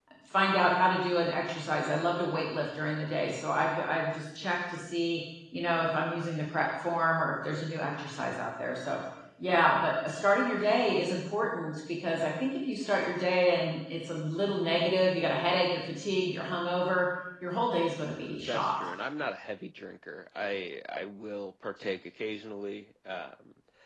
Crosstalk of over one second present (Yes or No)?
No